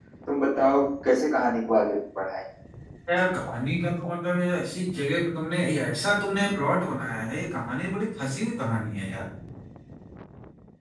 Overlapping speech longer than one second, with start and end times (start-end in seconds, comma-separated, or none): none